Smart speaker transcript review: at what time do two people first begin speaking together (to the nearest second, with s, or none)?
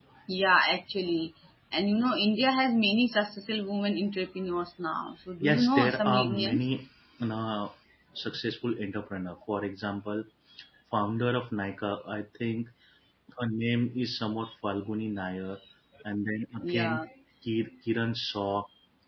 5 s